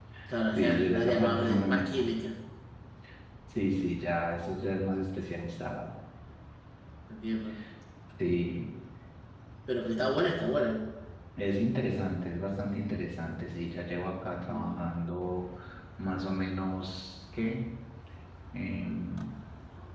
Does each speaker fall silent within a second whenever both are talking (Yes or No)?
No